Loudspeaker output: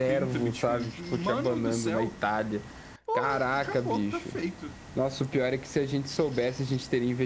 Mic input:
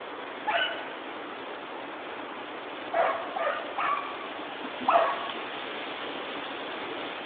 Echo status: none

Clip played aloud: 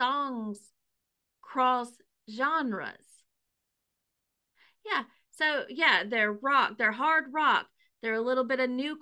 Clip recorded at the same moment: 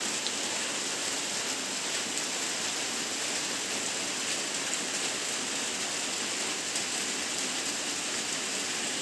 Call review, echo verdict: none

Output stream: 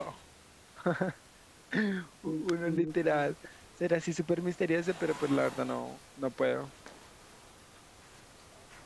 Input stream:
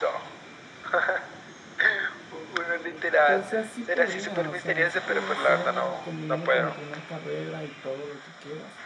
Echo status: present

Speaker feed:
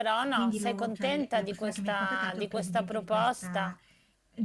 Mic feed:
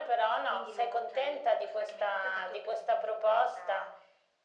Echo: present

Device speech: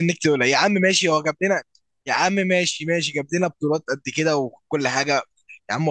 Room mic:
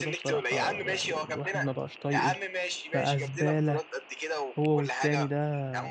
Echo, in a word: present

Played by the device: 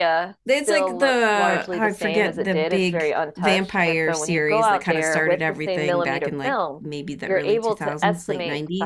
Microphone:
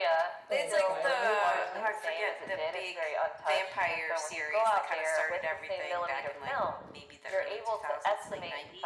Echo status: present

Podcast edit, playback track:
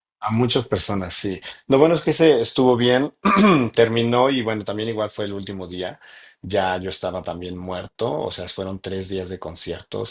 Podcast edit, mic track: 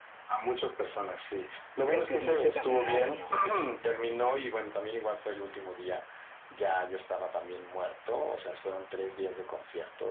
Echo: present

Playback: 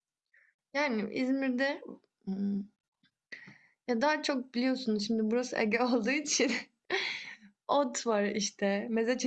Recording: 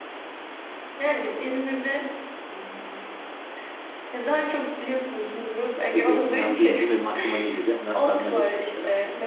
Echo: present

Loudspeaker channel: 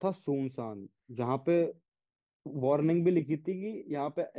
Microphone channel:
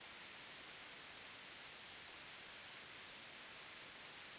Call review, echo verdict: none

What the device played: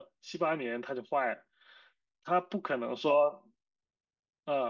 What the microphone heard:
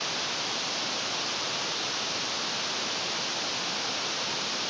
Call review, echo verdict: none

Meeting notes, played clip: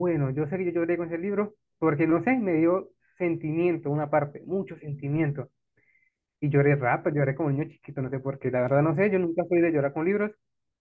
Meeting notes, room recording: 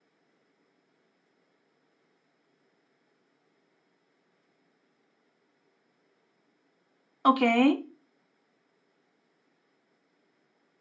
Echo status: none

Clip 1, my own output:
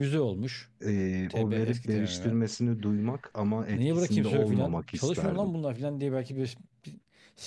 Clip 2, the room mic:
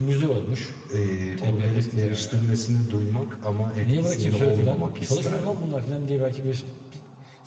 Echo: present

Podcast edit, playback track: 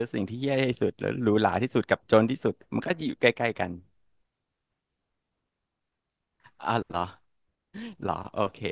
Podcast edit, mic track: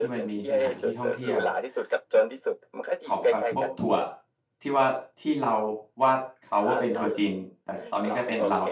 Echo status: present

